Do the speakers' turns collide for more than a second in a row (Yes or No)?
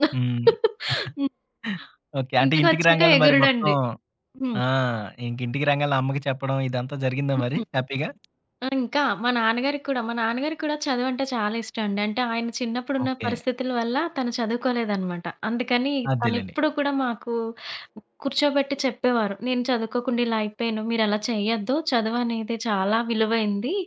Yes